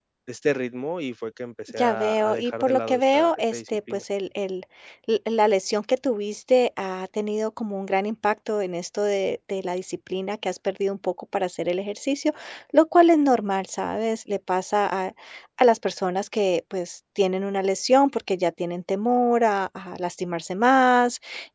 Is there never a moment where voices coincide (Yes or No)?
No